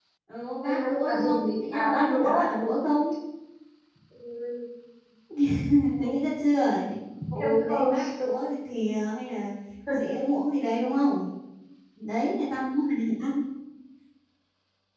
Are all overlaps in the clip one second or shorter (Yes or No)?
No